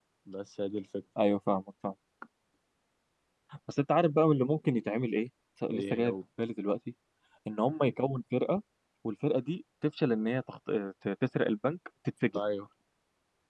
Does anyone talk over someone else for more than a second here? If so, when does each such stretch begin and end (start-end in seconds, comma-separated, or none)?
none